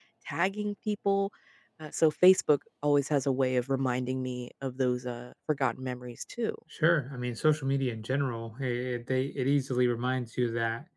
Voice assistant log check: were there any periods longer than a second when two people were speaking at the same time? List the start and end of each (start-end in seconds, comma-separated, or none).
none